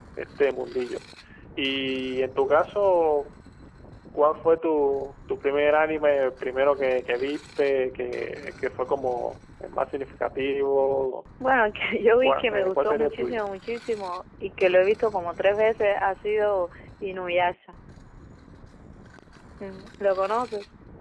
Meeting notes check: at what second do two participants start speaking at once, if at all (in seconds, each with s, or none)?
12.2 s